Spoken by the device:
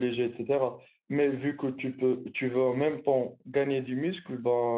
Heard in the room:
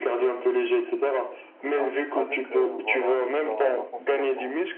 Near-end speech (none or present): present